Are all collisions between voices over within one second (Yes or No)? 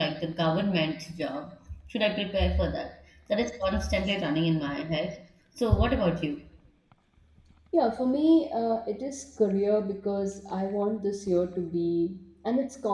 Yes